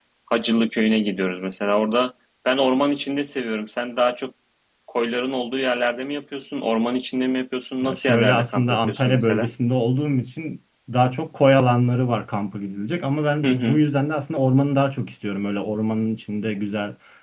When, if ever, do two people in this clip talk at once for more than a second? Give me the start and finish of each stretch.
7.8-9.5

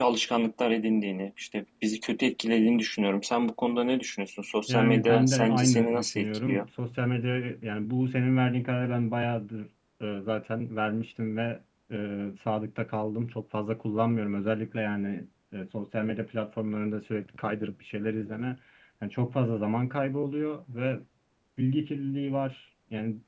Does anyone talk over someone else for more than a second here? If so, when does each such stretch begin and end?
4.7-6.7

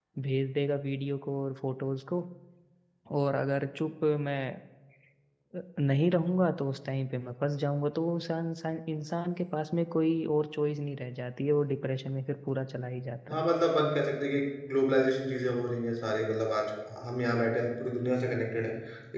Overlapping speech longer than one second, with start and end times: none

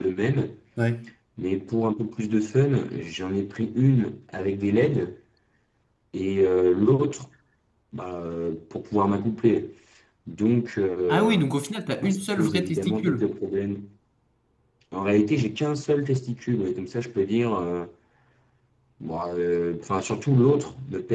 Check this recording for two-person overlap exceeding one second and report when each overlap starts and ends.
12.0-13.3

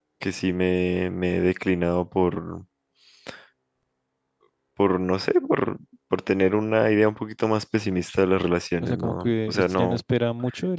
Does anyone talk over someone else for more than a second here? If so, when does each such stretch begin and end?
8.8-10.0

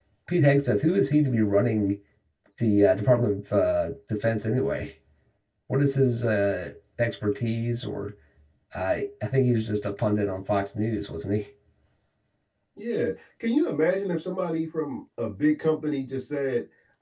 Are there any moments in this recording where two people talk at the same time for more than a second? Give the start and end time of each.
none

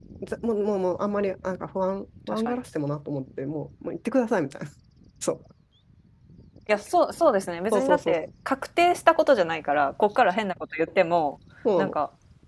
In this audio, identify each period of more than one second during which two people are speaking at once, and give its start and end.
none

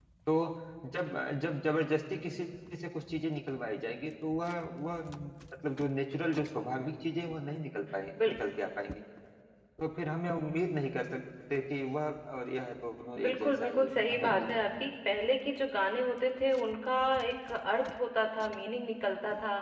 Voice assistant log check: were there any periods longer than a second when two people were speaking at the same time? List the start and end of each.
13.2-14.6

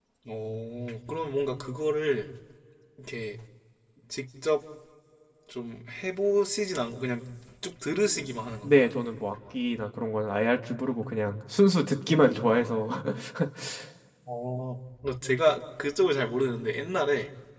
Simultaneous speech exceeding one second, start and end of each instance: none

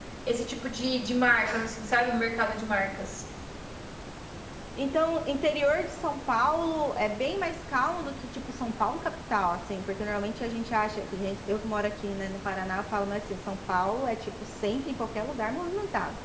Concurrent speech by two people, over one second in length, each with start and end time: none

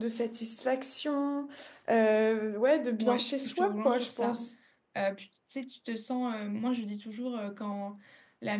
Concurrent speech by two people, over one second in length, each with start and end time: 3.0-4.4

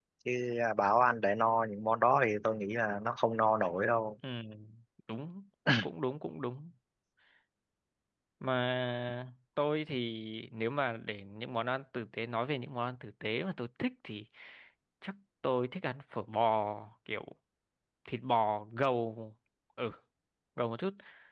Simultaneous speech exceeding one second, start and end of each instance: none

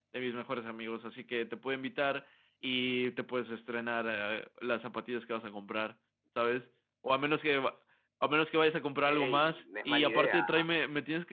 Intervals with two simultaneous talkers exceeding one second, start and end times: 9.0-10.6

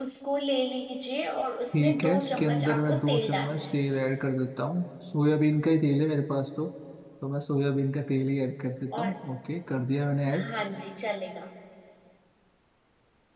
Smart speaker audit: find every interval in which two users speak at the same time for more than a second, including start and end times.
1.7-3.6

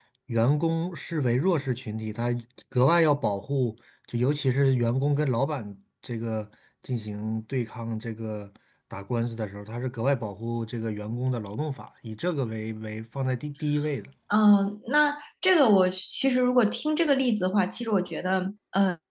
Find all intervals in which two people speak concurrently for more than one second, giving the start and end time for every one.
none

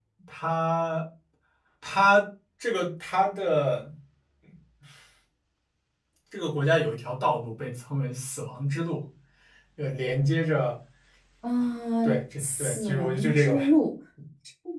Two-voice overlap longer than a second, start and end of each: 12.0-13.6

